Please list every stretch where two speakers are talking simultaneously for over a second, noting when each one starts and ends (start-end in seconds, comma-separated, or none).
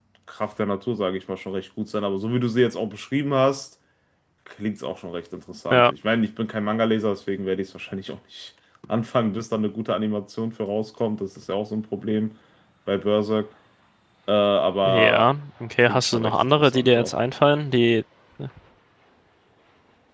15.9-17.1